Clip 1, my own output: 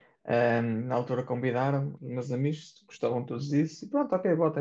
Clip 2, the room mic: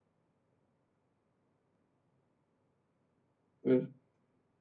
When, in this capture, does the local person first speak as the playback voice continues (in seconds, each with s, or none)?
3.6 s